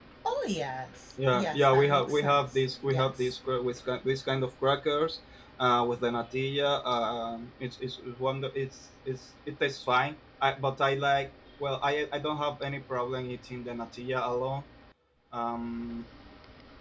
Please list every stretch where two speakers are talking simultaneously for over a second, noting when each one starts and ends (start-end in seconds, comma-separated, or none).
1.3-3.4